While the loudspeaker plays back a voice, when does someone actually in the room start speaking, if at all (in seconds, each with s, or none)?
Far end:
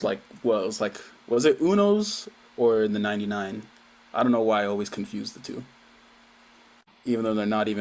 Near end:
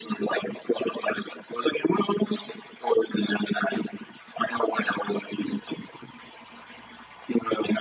none